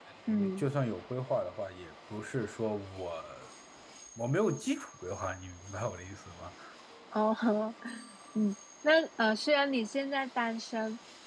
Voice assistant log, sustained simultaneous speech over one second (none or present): none